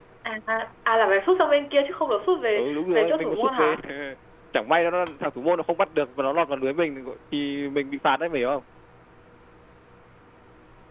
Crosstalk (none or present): present